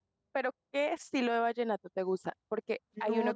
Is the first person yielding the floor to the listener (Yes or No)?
No